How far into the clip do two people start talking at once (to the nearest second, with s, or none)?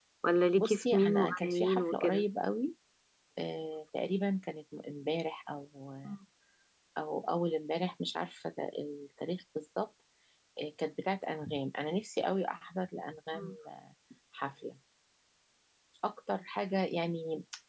1 s